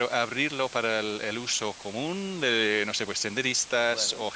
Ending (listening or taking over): listening